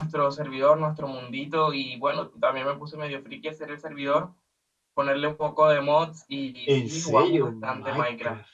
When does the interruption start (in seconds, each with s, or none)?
6.7 s